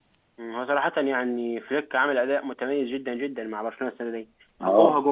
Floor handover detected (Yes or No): No